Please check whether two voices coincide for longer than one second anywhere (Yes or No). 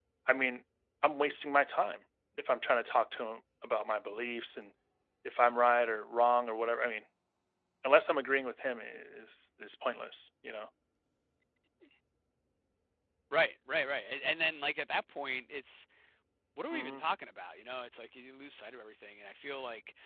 No